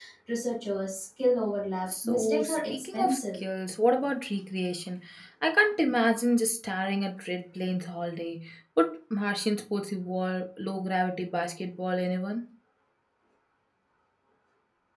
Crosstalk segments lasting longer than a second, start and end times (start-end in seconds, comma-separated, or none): 2.0-3.4